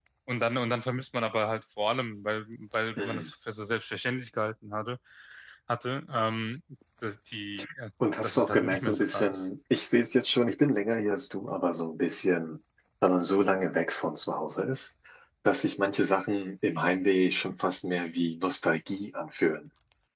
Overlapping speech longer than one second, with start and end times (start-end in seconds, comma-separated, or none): 8.2-9.4